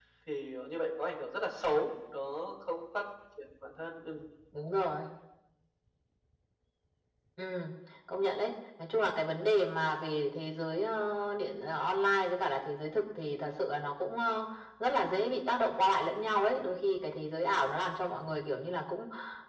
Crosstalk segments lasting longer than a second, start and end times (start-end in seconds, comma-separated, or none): none